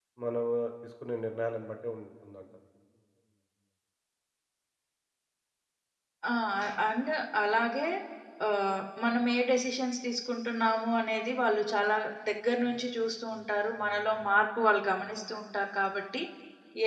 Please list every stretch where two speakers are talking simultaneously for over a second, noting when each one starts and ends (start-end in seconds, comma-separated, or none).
none